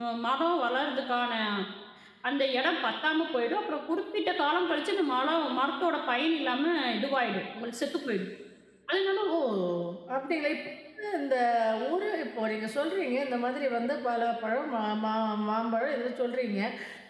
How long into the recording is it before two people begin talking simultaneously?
none

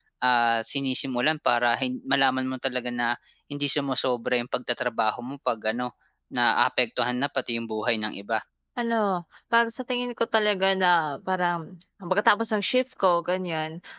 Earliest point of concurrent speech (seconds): none

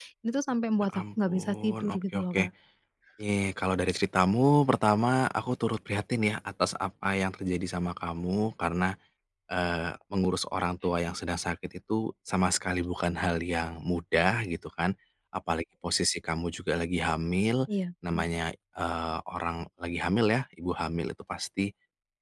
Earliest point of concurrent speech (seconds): 0.8 s

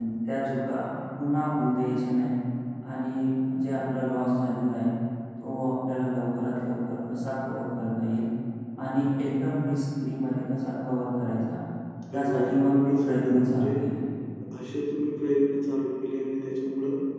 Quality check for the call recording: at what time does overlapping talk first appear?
12.1 s

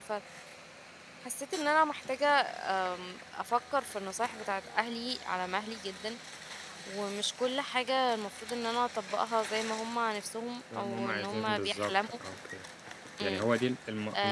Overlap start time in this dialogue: 10.7 s

